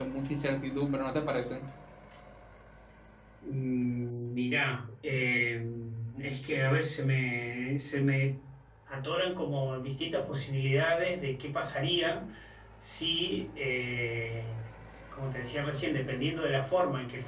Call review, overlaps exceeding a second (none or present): none